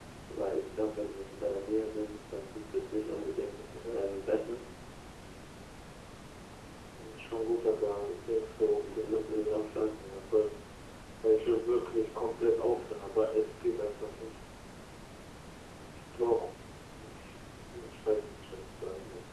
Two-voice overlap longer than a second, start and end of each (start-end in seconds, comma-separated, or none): 8.7-9.9